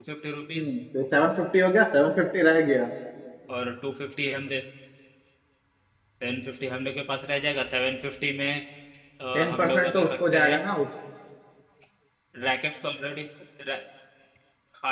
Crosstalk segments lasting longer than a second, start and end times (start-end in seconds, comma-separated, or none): 9.3-10.6